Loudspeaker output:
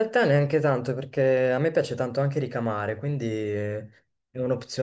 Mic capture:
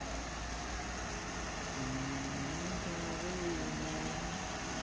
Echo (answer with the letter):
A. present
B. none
B